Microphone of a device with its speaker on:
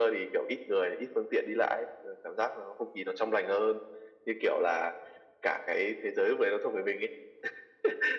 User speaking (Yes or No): No